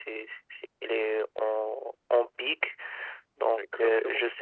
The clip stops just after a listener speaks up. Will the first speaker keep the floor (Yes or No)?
Yes